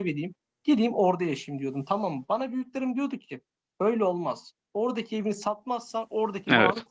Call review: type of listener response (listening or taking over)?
listening